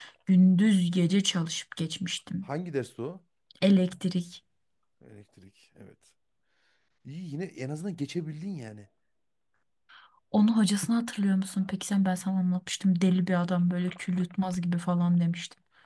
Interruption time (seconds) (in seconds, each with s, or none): none